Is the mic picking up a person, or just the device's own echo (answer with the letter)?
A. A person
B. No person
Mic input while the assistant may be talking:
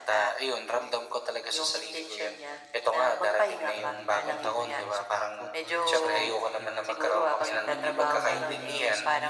A